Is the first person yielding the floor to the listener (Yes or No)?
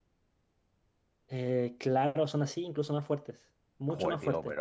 Yes